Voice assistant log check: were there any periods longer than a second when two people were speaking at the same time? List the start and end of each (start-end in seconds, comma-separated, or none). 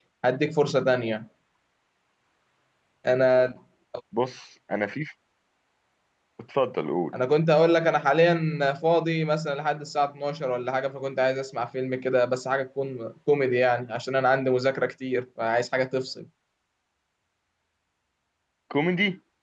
none